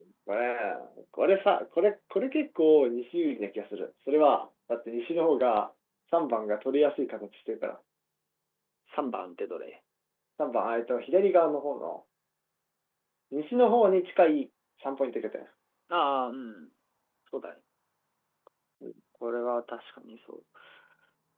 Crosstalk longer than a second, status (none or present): none